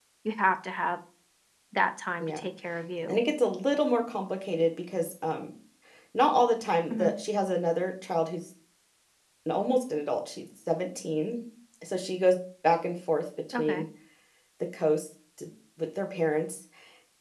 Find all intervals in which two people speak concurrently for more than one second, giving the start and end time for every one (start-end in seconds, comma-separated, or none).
none